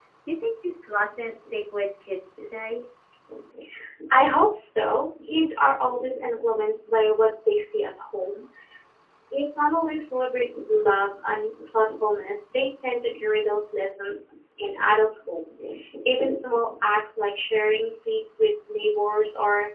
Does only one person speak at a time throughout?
Yes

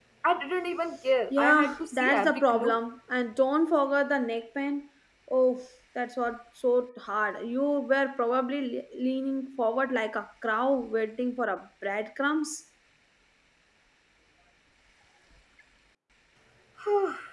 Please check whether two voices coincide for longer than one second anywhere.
Yes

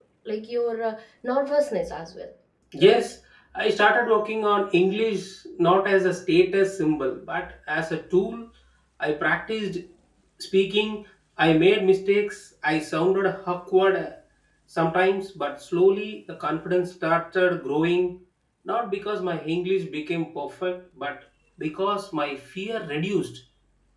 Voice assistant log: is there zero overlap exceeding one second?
Yes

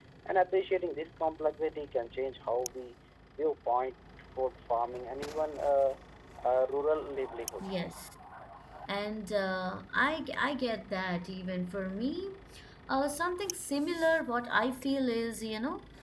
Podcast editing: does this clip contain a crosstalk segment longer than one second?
No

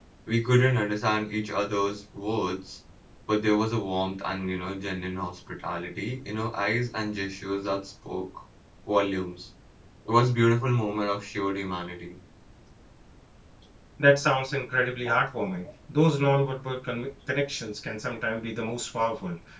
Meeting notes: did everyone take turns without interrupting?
Yes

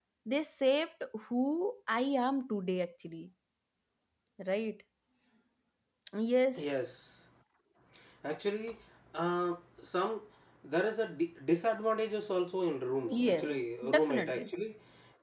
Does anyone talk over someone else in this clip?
Yes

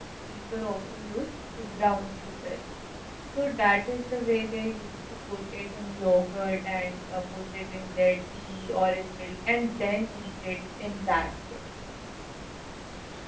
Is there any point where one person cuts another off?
No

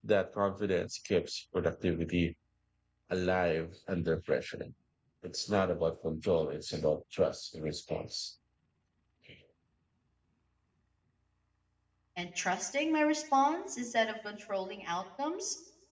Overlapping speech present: No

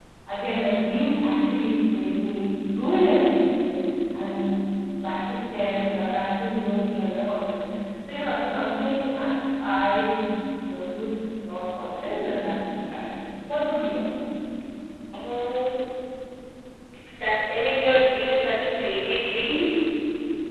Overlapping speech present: No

